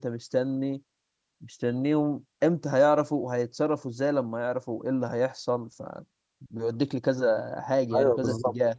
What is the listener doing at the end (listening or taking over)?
taking over